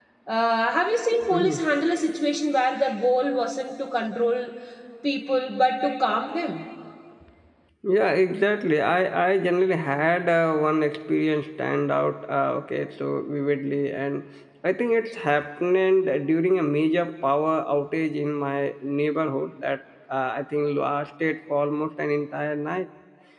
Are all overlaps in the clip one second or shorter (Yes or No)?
Yes